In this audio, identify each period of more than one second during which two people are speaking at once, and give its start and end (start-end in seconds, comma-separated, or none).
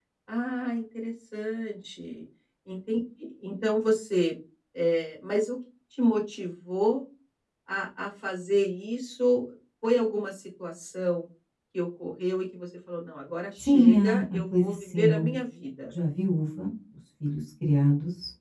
13.6-15.4